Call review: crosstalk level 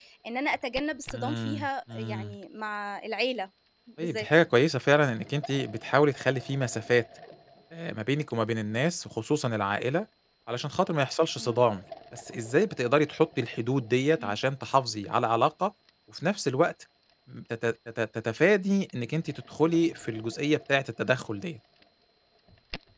present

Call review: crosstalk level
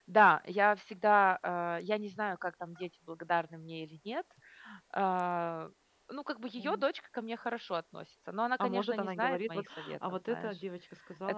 present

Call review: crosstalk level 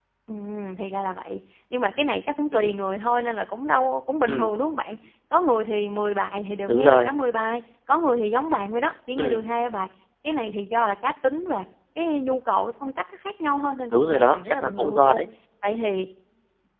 present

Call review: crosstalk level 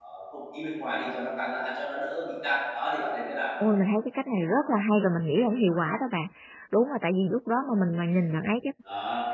none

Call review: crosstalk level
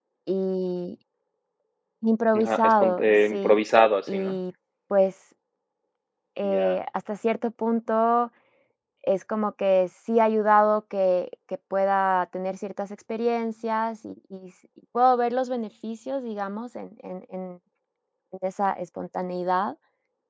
present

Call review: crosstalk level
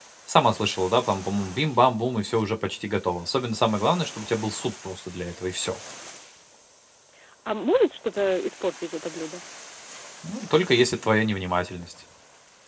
none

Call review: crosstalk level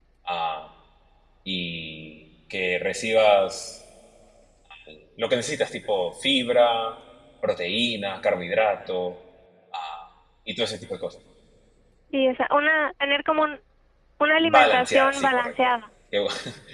present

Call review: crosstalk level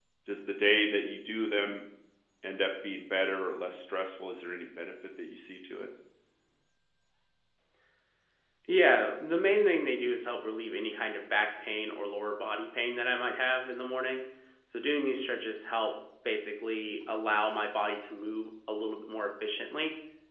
none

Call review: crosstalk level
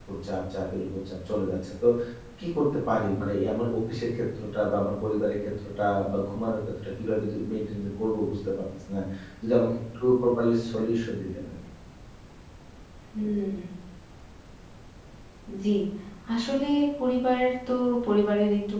none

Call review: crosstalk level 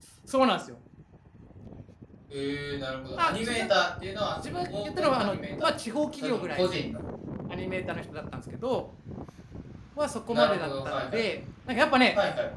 present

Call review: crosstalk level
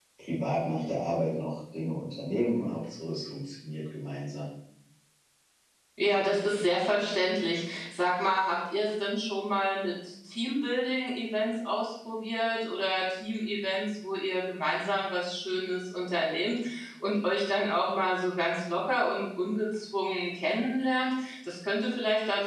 none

